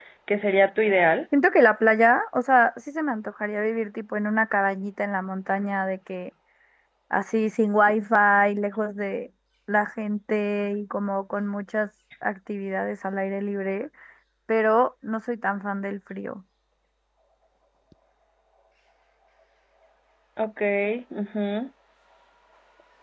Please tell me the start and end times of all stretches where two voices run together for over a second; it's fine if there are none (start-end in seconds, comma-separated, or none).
none